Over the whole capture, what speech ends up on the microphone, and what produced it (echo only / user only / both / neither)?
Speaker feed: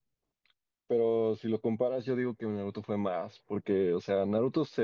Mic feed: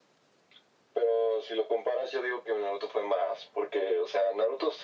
echo only